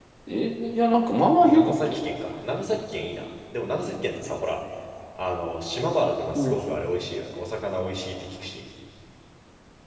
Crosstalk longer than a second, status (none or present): none